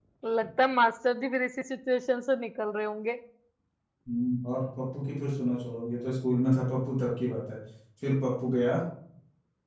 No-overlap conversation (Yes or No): Yes